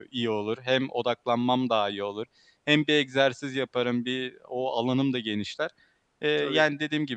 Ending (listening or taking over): listening